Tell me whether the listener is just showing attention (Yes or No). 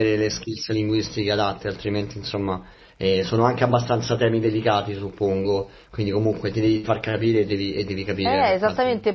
No